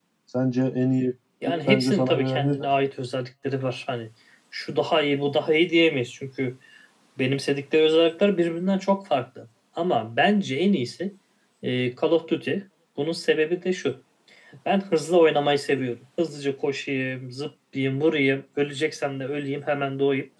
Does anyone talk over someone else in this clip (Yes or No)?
Yes